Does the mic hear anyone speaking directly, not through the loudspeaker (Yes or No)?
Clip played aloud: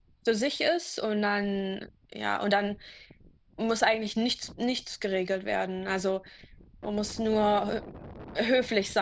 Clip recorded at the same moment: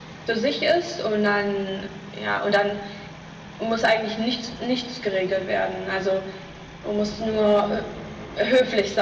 No